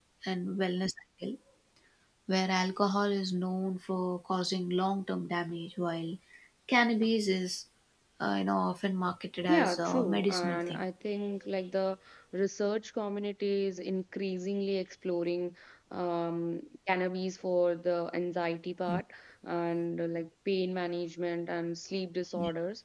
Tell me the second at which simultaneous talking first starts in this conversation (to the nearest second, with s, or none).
9 s